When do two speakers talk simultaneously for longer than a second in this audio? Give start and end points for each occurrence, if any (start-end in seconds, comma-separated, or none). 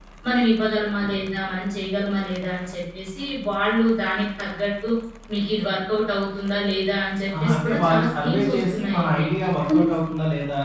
7.4-9.2